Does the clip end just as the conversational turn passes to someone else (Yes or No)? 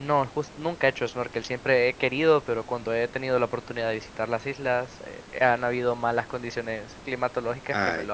Yes